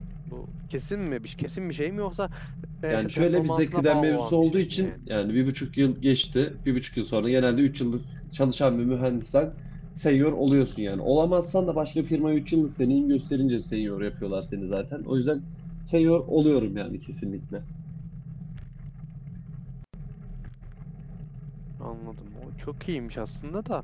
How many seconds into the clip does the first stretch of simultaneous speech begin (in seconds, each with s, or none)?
2.9 s